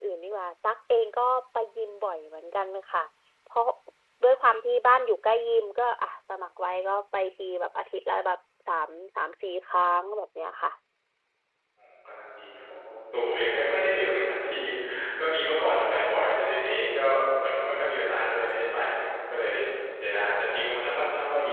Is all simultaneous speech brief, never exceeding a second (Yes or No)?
Yes